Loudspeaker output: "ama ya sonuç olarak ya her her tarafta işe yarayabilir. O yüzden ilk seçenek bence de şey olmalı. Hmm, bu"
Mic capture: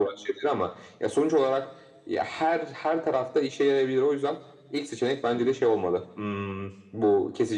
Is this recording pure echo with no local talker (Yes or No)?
Yes